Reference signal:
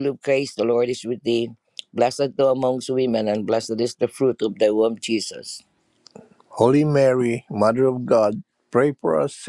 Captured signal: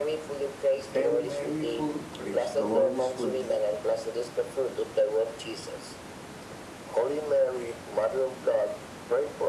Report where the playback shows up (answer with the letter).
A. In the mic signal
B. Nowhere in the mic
A